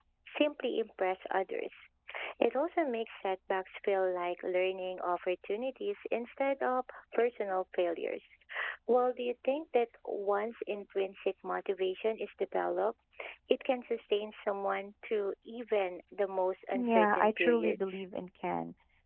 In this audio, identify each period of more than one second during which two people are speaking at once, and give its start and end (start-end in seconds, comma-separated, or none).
16.7-18.0